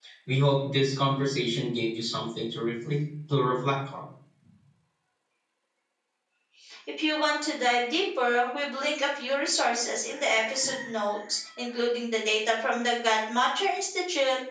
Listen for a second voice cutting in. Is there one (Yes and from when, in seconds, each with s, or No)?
No